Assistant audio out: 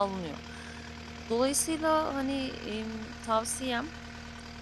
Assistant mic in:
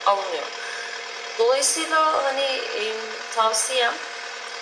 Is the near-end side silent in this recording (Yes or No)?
Yes